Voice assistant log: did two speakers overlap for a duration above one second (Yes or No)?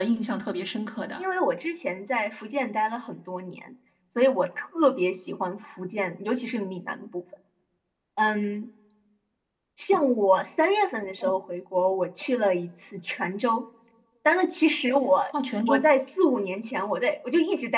No